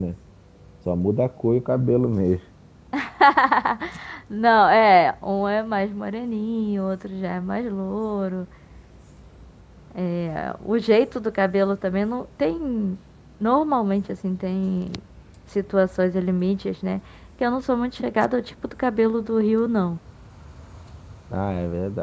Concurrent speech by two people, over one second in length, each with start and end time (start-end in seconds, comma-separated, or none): none